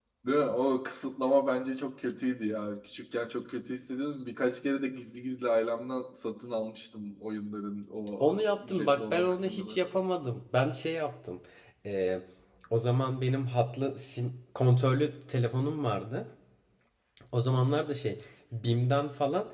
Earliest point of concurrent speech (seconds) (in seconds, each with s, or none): 8.2 s